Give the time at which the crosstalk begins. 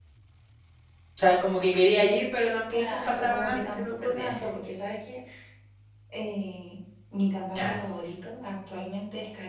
2.7 s

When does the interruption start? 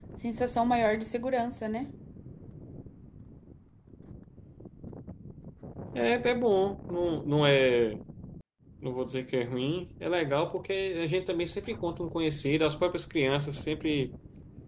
none

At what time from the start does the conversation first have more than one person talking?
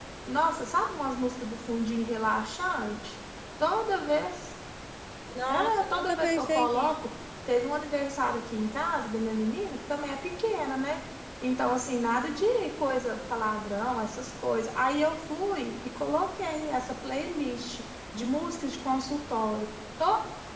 5.5 s

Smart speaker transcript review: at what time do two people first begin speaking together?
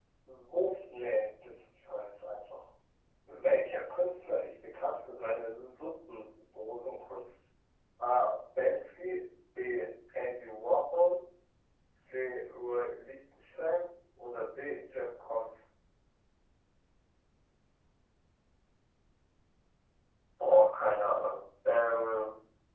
none

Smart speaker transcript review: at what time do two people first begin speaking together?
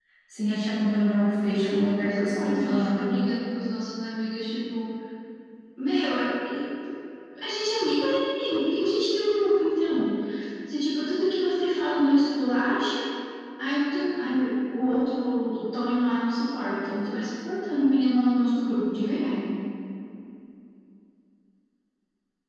1.6 s

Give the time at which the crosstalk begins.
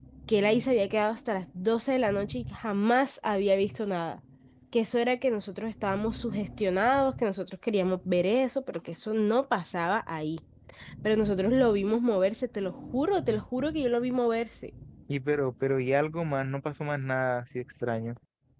none

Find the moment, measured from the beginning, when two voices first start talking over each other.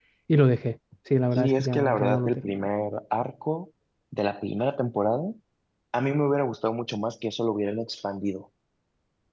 1.3 s

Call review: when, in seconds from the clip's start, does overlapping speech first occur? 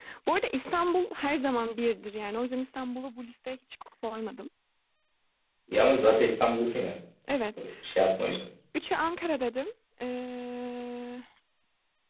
none

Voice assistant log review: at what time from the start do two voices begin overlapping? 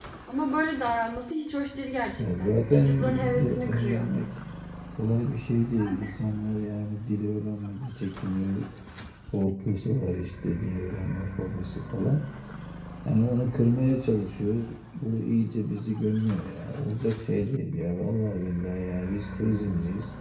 2.2 s

